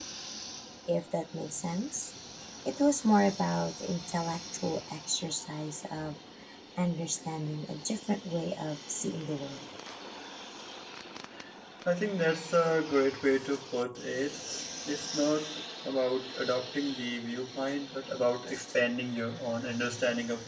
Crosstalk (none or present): none